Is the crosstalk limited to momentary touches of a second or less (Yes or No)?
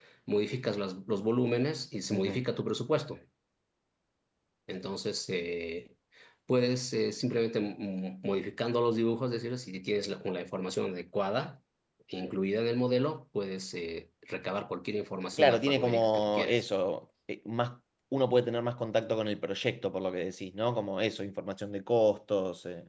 No